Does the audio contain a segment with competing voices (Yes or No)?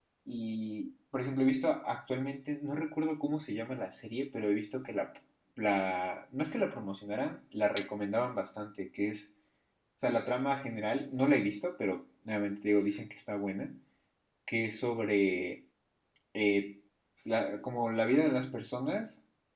No